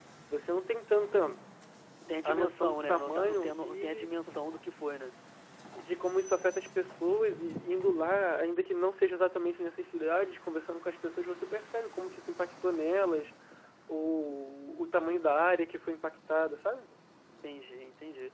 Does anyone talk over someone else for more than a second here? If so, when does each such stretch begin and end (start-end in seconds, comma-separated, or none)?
2.2-4.4